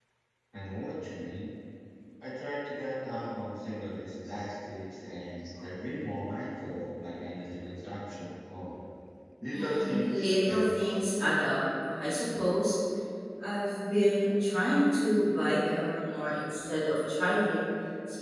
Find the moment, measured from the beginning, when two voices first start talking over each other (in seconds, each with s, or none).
9.5 s